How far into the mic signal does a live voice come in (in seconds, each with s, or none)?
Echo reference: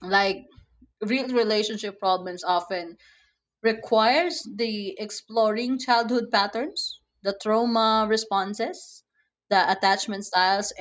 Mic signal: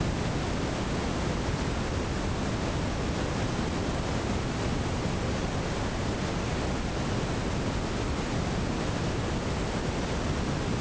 none